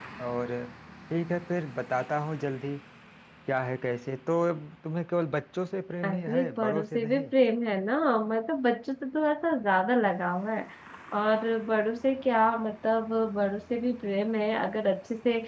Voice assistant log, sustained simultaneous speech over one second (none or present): present